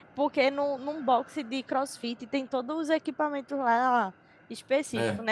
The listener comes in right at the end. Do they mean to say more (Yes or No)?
No